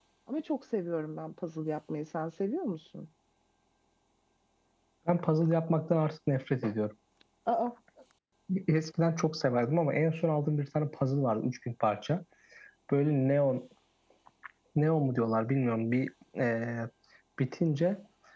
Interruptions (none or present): none